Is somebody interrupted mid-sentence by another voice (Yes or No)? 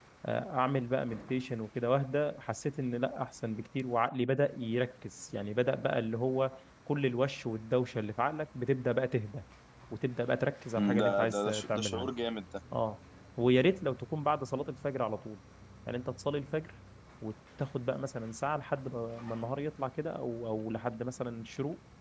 Yes